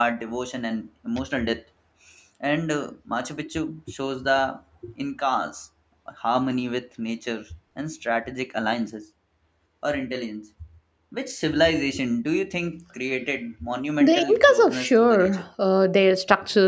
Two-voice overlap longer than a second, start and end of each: 14.0-15.4

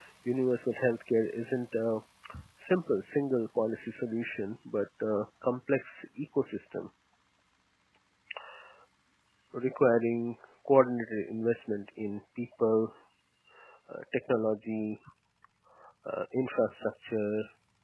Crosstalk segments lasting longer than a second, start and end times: none

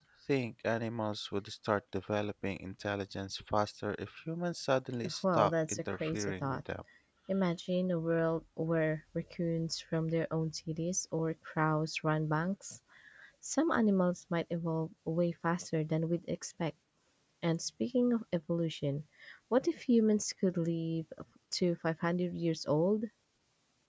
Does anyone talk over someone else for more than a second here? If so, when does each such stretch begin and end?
5.2-6.6

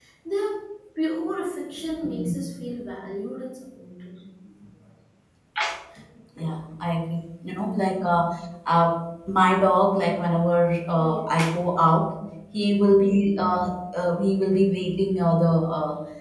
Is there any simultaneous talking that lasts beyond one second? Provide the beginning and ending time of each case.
none

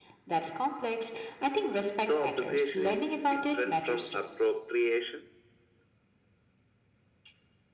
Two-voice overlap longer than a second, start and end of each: 2.2-4.2

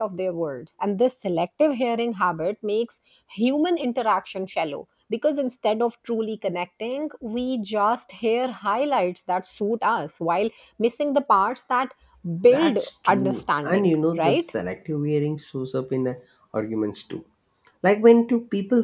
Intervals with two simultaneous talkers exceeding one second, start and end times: 12.4-14.5

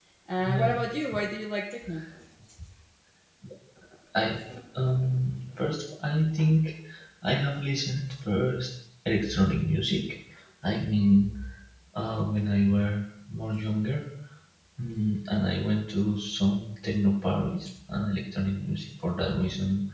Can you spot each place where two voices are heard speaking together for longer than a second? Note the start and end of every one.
none

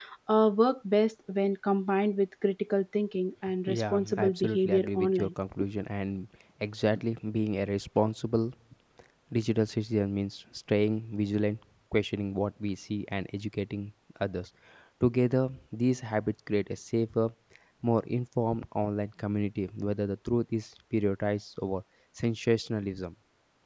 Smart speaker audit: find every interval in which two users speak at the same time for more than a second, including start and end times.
3.7-5.3

